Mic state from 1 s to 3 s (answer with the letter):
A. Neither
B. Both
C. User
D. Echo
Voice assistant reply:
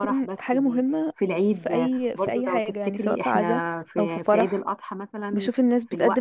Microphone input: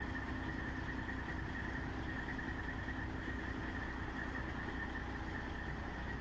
A